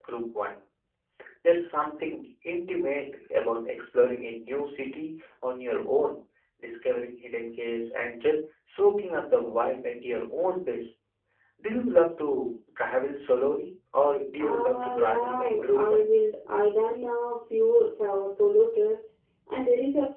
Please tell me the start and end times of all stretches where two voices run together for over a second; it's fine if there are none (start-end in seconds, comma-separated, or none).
14.4-16.1